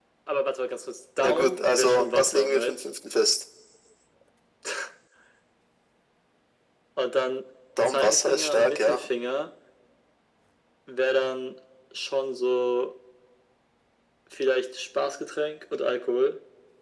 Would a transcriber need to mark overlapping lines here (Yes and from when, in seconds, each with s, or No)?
Yes, from 1.2 s